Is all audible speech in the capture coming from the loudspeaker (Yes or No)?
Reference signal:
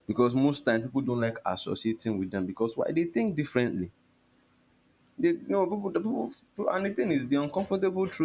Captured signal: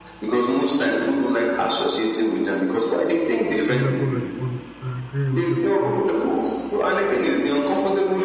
No